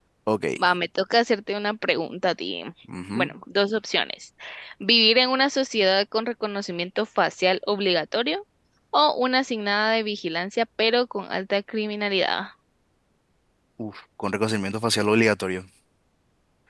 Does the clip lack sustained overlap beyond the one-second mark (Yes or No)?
Yes